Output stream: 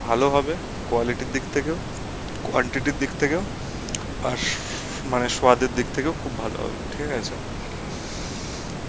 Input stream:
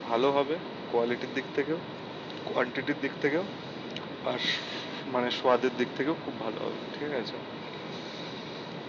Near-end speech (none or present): none